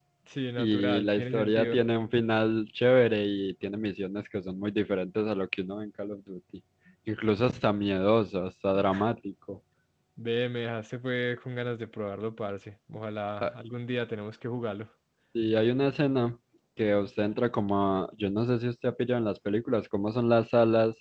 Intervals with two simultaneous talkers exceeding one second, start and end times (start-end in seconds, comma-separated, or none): 0.6-1.8